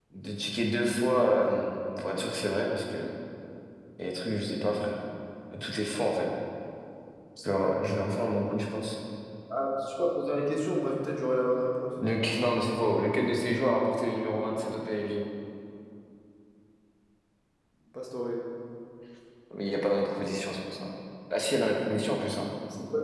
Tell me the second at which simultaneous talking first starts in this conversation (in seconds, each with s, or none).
none